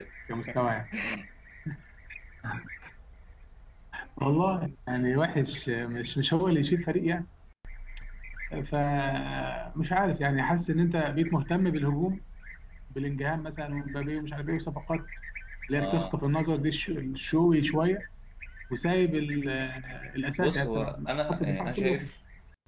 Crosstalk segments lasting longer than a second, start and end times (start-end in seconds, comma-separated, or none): 20.4-22.1